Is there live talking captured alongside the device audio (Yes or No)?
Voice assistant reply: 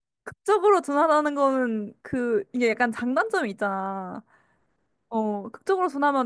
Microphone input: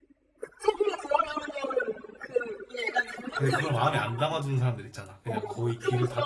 Yes